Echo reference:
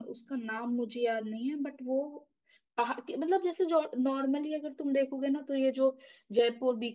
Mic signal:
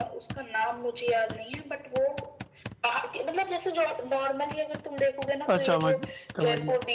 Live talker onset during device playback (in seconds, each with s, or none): 5.5 s